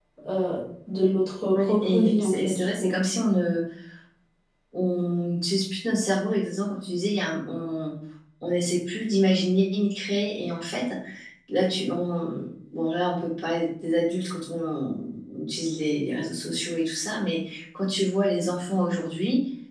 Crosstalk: present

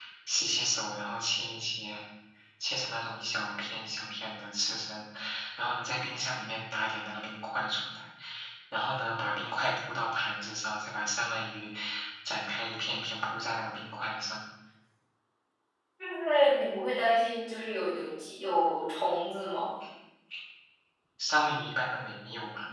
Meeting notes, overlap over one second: none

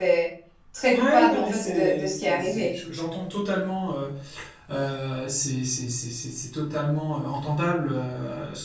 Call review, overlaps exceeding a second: present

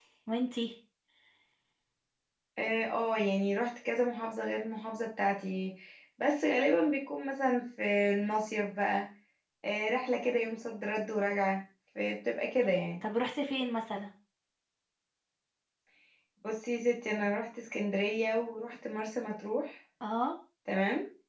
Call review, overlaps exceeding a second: none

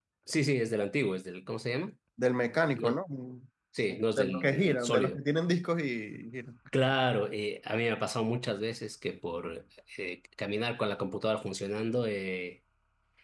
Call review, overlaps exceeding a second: present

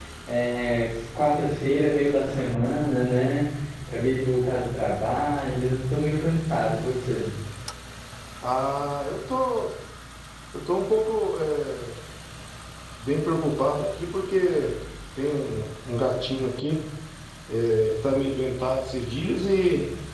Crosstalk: none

